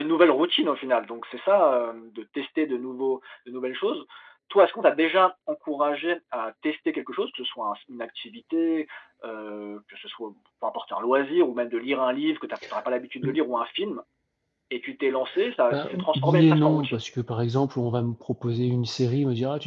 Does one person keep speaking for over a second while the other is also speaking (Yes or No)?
Yes